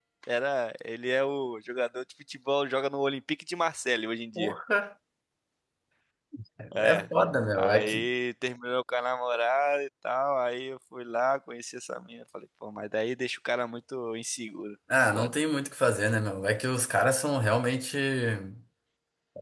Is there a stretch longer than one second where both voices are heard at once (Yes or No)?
No